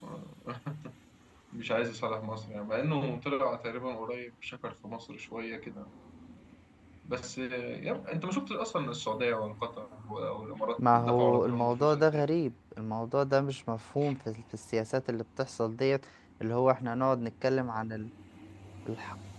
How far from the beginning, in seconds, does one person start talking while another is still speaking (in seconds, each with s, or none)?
10.8 s